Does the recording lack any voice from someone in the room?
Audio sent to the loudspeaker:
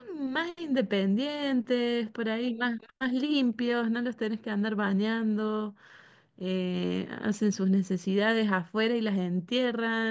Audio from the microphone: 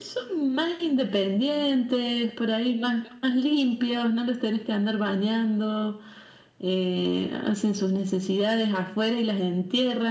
Yes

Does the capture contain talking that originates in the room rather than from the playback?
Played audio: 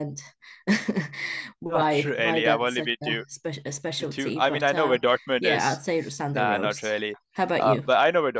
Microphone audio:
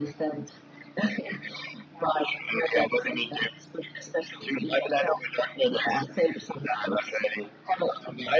No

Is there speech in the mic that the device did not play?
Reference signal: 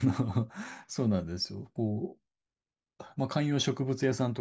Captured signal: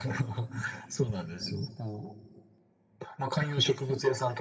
No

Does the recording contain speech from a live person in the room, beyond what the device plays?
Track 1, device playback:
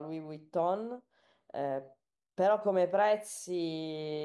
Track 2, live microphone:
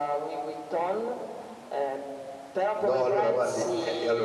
Yes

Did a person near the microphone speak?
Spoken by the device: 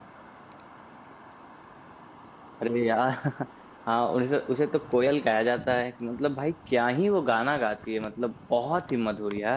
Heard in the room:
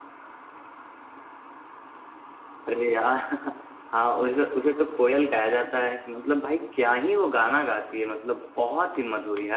No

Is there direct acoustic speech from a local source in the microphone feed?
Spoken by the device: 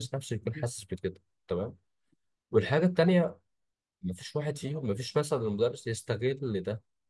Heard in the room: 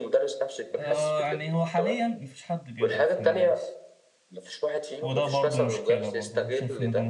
Yes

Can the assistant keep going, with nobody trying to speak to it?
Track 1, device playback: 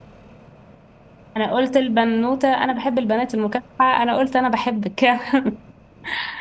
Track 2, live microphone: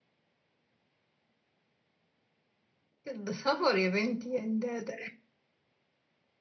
No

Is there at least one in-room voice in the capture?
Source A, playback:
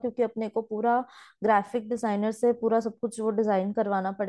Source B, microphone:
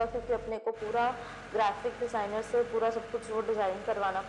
No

